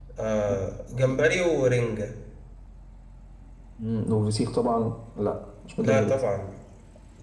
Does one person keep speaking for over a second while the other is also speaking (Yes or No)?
No